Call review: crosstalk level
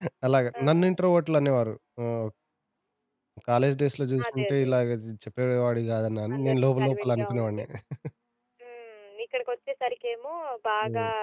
present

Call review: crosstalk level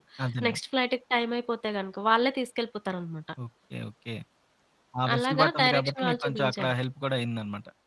present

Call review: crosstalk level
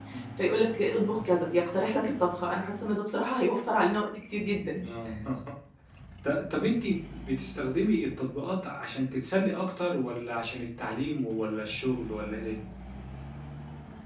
none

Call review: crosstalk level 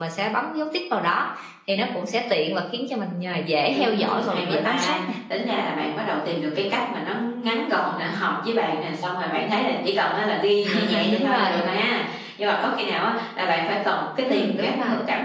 present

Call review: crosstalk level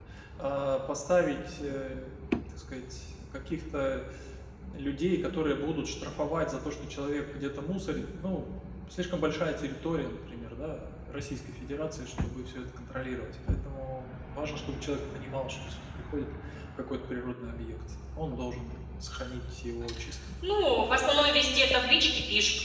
none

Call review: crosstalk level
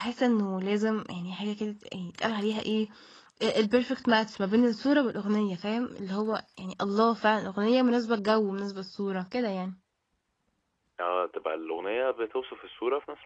none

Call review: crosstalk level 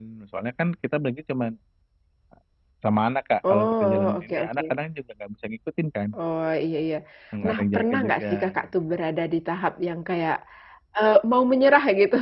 present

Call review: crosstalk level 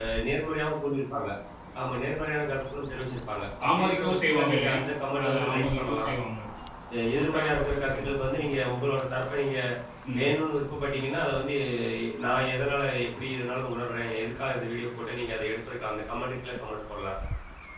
present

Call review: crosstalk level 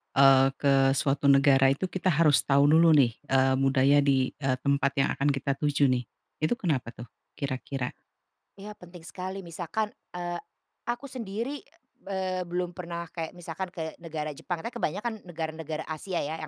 none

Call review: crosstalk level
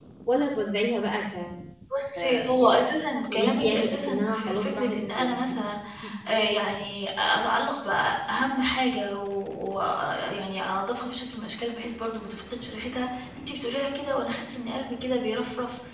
present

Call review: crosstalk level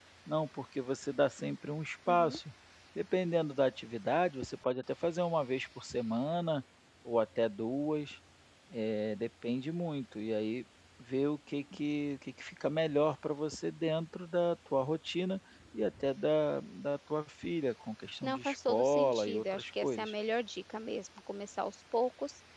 present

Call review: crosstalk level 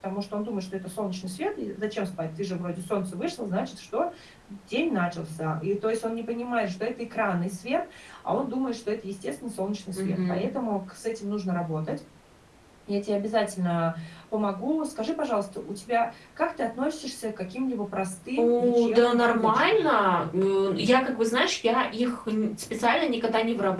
present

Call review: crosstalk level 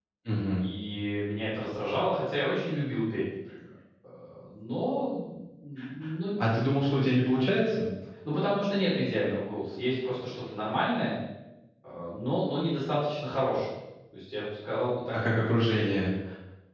none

